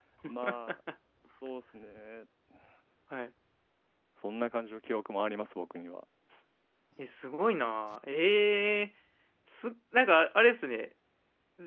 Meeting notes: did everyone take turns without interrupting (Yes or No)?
Yes